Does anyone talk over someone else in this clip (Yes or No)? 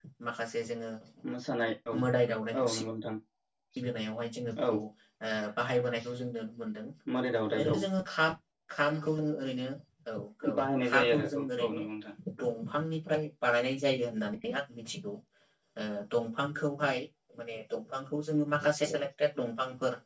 Yes